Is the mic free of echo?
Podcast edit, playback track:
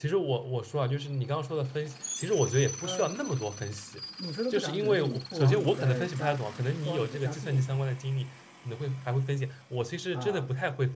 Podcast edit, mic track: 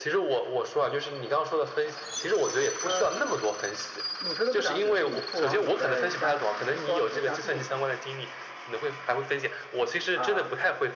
No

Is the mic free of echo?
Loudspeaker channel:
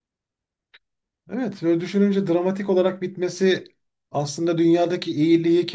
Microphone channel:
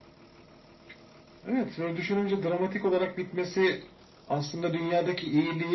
No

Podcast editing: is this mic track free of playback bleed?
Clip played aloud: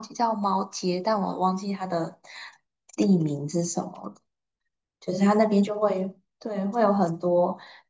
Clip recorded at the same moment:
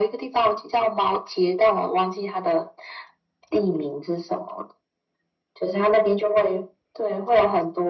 No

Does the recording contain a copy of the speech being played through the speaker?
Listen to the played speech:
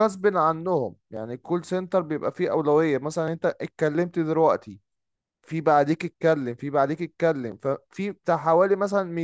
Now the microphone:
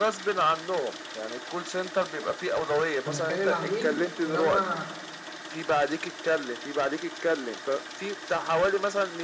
Yes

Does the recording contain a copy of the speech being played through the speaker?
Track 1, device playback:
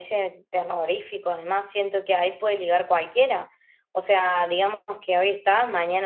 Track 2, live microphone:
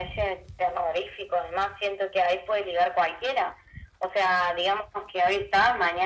Yes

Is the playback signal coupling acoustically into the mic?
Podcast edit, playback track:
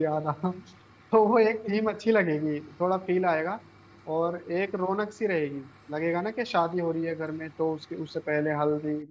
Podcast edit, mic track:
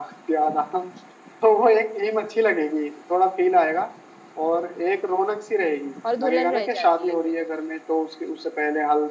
Yes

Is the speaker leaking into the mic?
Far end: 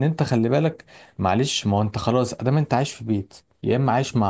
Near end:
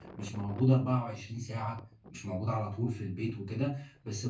No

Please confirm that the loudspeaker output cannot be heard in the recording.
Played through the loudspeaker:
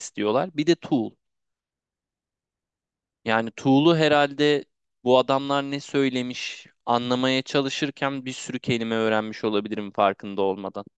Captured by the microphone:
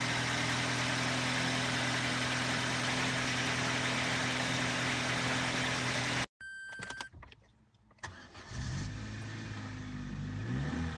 Yes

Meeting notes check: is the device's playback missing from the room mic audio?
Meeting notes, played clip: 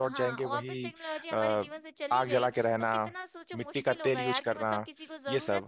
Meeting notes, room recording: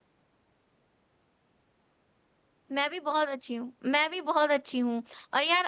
Yes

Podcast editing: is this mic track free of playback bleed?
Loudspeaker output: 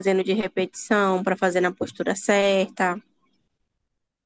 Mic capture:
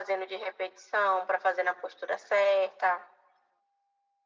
No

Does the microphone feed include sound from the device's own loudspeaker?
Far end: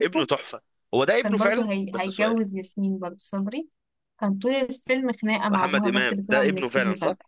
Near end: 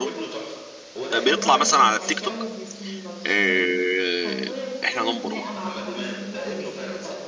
Yes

